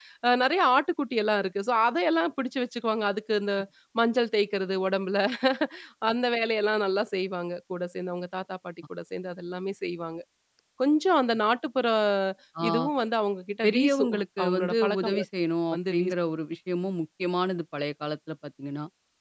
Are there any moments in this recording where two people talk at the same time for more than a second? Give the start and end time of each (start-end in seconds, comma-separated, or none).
13.6-15.2